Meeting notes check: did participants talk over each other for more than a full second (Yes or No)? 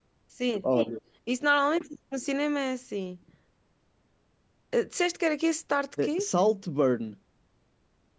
No